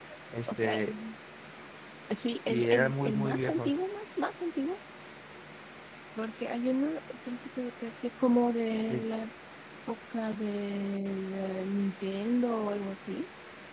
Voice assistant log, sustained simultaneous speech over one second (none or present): present